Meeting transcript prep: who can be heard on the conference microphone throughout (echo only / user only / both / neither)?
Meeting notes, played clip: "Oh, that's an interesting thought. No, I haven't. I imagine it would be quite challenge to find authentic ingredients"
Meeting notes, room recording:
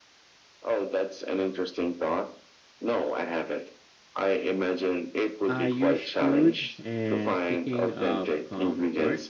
both